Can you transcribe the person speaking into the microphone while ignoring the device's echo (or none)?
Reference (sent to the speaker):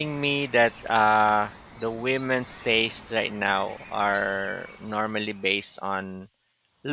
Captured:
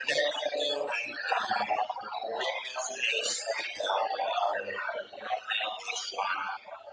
none